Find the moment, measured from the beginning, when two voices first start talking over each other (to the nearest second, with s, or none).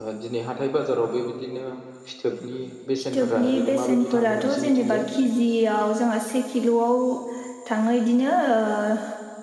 3 s